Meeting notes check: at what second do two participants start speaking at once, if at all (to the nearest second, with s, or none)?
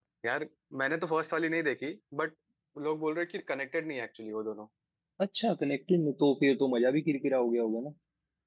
none